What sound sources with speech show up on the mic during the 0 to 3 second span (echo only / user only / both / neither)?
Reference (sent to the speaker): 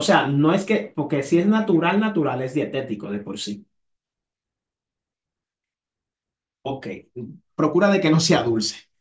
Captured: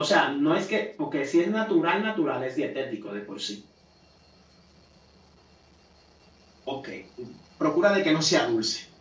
echo only